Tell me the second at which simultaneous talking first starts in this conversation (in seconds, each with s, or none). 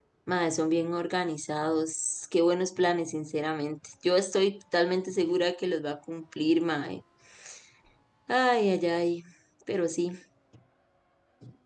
none